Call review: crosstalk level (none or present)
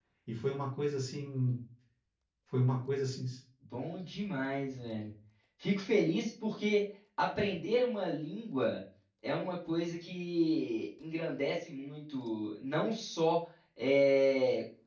none